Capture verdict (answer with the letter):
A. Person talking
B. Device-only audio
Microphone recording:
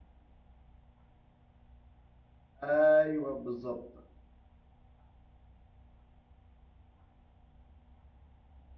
A